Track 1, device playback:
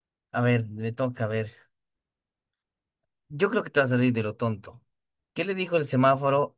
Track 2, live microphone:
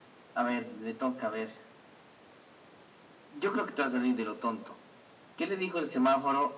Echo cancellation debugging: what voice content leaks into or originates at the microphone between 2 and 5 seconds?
echo only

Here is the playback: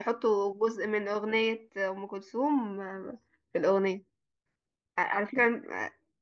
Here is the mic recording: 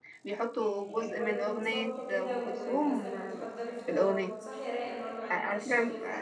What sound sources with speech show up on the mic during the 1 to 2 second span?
both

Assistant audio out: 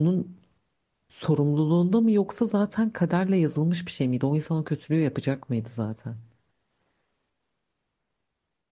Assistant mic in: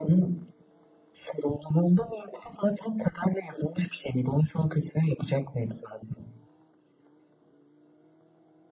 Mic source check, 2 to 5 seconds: echo only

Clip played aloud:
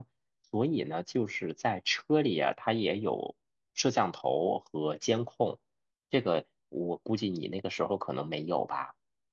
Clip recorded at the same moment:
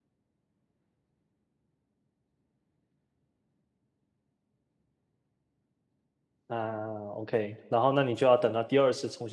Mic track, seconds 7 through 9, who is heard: user only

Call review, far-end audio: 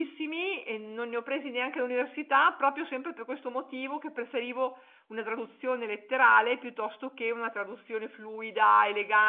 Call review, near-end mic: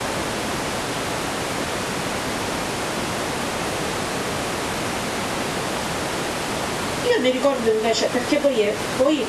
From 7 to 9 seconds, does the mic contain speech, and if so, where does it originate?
user only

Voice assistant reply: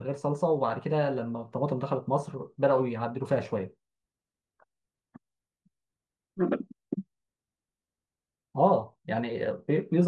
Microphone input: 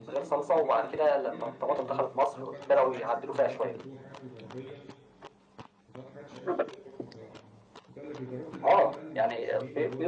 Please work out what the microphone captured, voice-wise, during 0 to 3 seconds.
both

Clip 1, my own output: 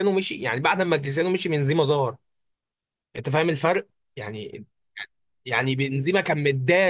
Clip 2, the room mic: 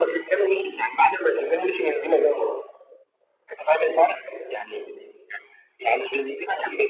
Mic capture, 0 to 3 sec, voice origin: echo only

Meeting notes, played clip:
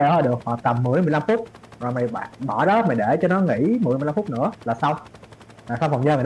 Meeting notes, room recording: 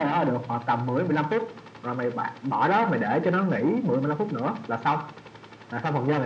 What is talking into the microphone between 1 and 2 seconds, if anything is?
echo only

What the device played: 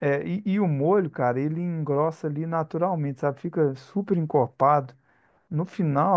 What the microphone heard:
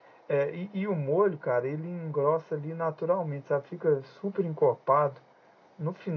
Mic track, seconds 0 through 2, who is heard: echo only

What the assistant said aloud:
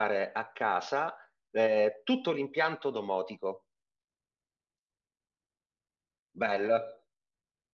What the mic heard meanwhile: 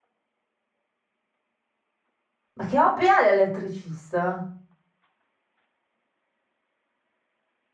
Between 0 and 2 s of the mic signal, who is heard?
neither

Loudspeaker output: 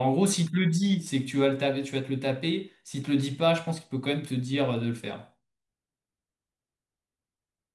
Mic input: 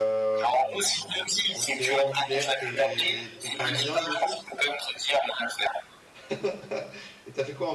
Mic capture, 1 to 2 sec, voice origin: both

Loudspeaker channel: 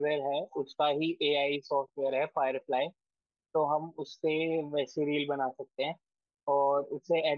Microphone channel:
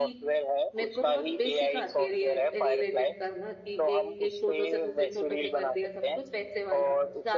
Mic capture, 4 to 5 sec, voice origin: both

